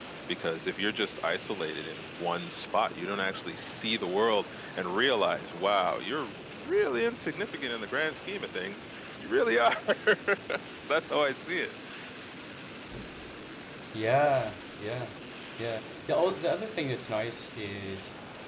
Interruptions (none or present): none